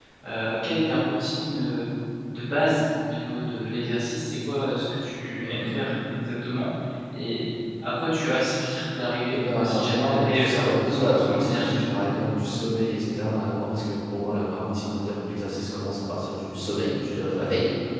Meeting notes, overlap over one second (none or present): present